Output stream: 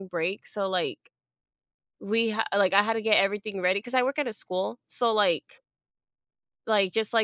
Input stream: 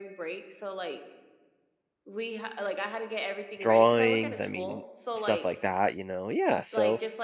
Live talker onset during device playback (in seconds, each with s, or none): 3.6 s